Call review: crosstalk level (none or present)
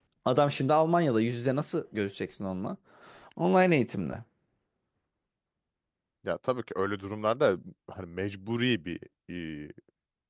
none